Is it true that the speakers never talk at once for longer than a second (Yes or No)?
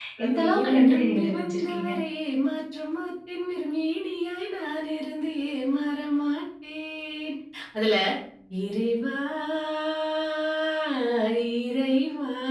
No